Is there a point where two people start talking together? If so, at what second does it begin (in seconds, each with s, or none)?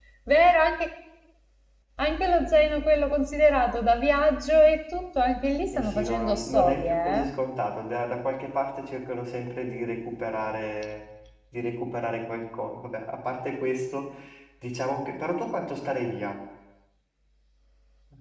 5.7 s